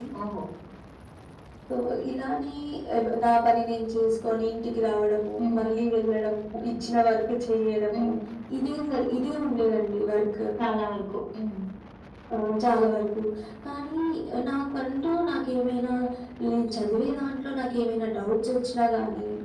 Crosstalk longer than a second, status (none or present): none